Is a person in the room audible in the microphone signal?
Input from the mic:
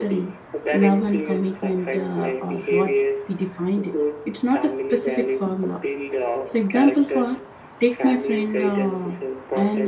Yes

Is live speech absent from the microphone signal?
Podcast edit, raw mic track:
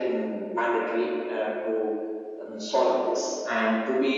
Yes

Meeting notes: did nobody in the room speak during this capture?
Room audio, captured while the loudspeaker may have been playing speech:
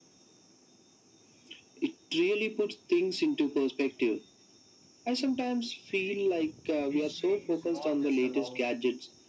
No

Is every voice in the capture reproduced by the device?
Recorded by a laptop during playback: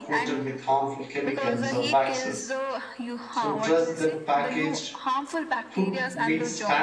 No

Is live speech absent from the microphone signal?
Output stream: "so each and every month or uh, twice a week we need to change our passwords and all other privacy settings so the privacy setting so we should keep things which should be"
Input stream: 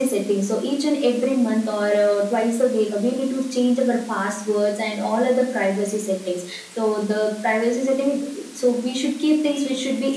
Yes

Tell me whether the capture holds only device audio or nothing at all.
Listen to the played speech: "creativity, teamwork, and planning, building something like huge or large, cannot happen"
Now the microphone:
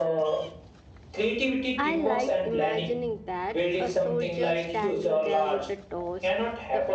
No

